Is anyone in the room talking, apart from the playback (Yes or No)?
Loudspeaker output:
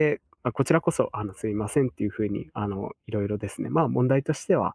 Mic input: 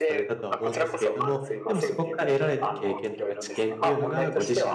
Yes